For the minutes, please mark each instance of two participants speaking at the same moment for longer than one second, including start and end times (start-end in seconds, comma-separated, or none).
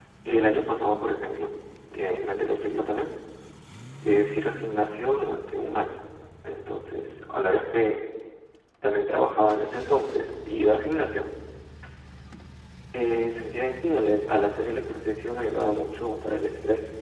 none